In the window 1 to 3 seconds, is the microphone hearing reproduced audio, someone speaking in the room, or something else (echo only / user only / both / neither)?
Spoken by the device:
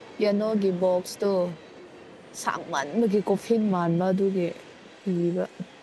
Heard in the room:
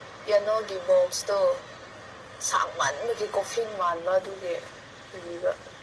echo only